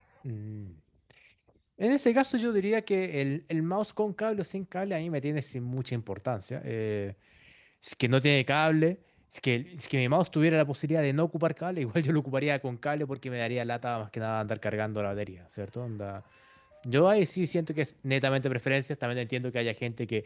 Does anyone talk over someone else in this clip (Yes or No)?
No